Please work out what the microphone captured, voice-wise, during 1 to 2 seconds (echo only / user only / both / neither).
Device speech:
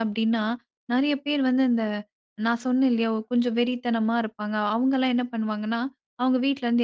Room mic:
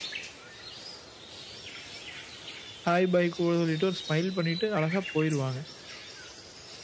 neither